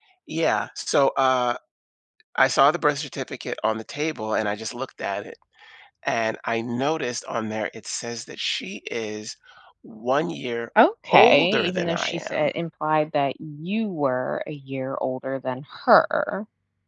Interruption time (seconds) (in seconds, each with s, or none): 11.1 s